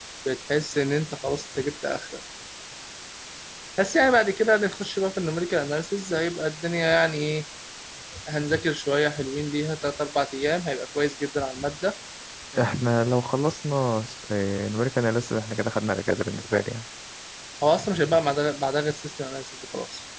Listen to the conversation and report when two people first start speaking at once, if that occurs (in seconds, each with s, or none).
none